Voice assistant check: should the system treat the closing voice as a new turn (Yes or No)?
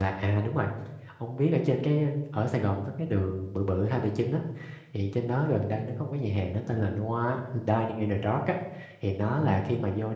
No